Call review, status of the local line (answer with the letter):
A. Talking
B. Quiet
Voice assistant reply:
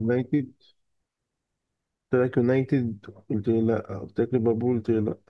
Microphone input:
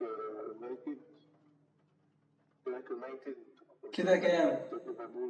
A